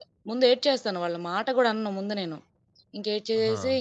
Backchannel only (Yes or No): Yes